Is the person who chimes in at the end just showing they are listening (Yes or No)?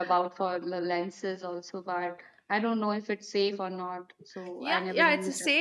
No